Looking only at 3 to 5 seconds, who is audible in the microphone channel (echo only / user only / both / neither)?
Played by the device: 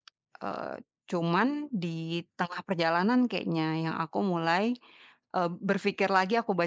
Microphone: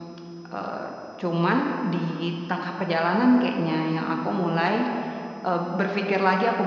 echo only